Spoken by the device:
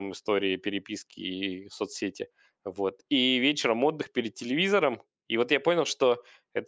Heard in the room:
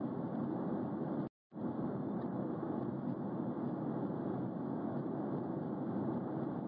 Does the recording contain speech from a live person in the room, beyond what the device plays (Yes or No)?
No